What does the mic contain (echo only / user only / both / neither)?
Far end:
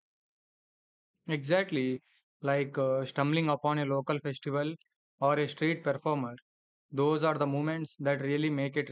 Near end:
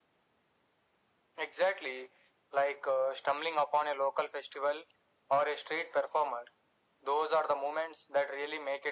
echo only